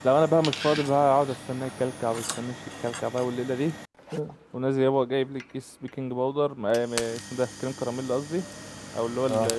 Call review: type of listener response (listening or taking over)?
listening